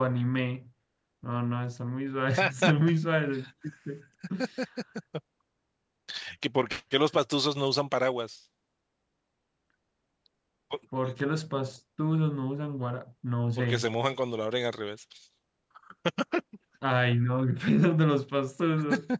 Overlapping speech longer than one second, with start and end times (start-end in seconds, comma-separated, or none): none